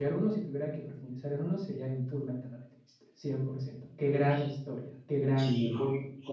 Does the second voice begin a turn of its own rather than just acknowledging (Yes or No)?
Yes